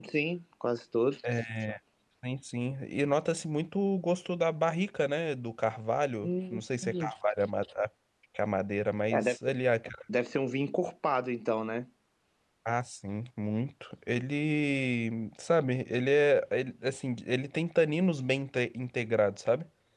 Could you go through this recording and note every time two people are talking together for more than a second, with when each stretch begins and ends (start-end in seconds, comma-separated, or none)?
none